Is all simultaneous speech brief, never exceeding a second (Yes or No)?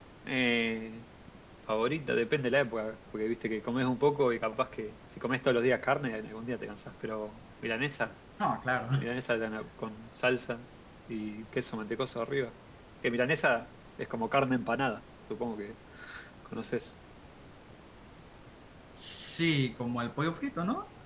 Yes